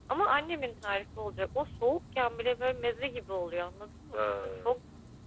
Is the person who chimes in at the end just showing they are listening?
Yes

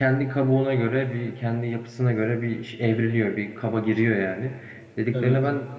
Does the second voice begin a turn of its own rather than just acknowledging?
No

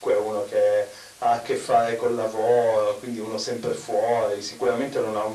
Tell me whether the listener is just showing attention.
Yes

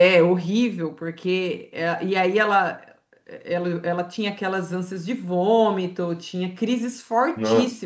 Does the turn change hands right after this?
No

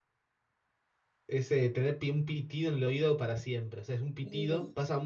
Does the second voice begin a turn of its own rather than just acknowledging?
No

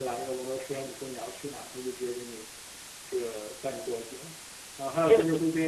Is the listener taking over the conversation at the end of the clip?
No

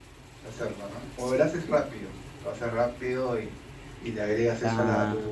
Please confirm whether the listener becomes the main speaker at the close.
No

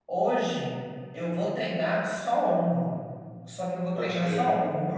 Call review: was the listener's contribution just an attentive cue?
Yes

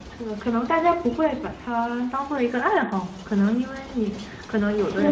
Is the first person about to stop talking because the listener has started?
Yes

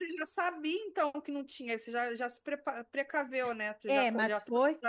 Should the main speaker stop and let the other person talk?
Yes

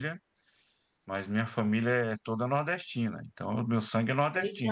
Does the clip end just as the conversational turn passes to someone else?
Yes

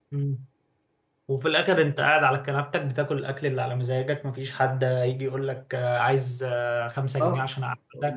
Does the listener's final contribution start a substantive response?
Yes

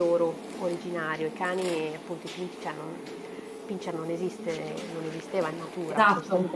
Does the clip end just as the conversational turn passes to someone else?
No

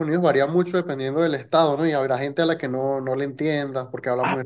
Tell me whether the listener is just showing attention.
No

